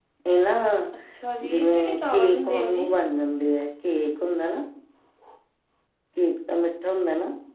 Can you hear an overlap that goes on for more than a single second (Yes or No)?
Yes